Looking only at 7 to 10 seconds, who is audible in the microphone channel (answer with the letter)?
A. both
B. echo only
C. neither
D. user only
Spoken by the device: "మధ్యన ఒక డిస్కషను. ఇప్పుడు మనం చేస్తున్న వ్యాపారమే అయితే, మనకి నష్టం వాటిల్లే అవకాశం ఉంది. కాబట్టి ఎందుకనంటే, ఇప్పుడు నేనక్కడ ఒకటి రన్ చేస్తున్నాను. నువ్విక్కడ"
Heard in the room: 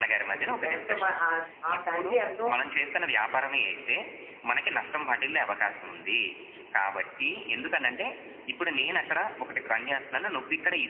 B